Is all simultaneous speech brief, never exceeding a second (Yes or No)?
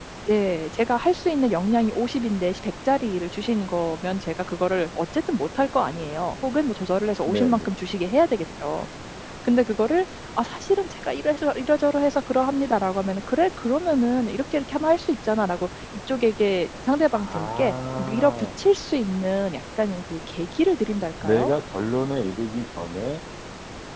No